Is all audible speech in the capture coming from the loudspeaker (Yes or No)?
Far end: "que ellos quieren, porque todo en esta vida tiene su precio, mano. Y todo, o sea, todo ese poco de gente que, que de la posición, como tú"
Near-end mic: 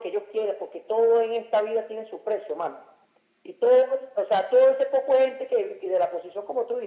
Yes